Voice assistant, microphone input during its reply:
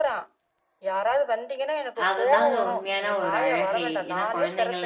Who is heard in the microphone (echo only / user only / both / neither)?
both